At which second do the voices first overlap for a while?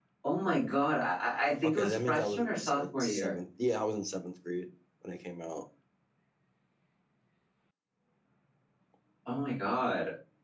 2 s

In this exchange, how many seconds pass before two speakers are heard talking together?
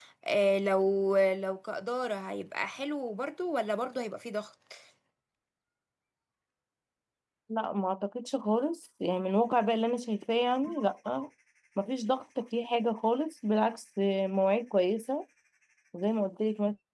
none

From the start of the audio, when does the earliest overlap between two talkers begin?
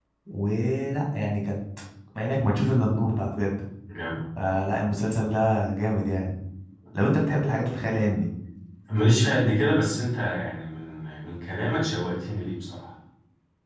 none

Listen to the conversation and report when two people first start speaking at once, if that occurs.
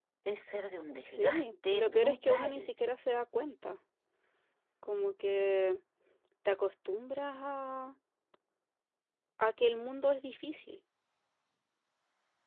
1 s

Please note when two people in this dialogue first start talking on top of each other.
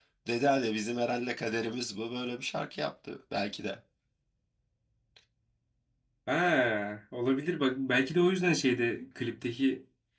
none

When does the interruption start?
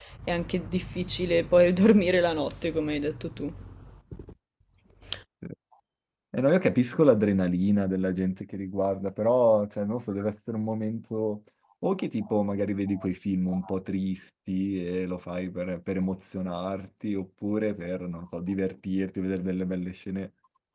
none

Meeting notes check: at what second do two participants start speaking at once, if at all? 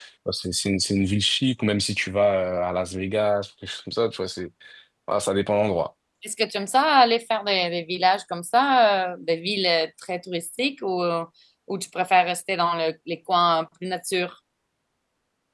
none

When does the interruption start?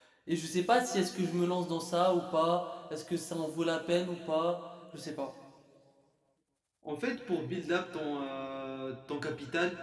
none

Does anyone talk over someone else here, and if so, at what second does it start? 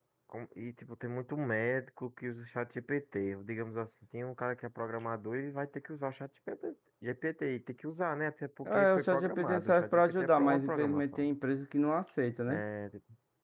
9 s

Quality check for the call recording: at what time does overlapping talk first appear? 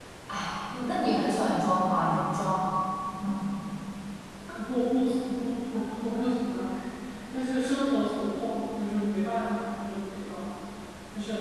none

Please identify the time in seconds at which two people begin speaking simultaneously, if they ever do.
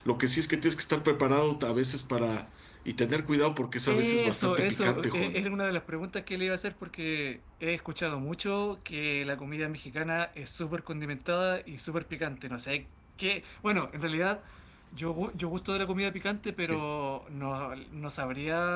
4 s

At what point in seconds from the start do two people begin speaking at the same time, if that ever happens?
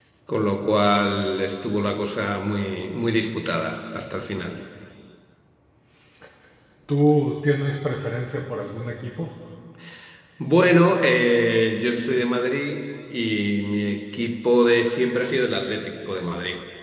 none

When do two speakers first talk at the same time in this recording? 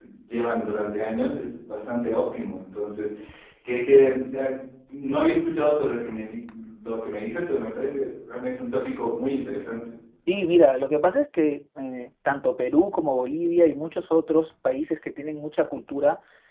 none

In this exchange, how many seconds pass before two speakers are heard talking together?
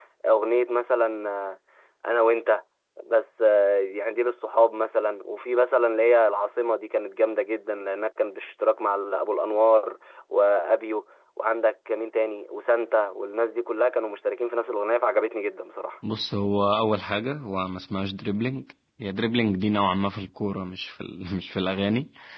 none

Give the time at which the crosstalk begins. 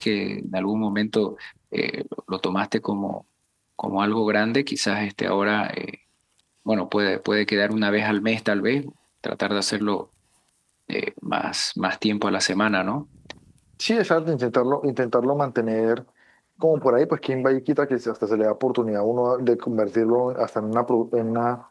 none

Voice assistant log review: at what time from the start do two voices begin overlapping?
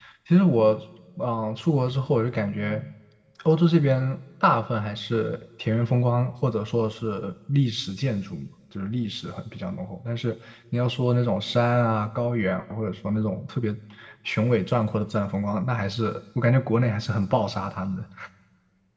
none

